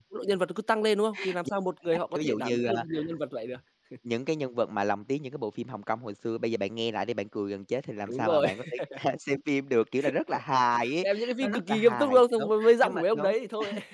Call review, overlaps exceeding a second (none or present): present